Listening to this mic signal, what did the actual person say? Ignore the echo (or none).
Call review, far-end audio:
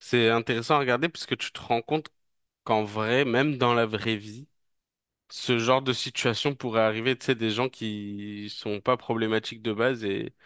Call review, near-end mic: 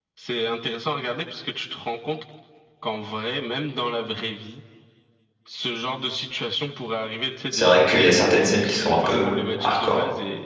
c'est vrai qu'il y a certaines scènes qui sont un peu hardcore,